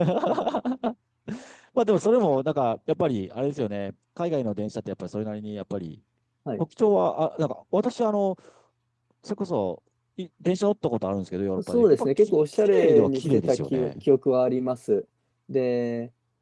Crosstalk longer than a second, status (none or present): present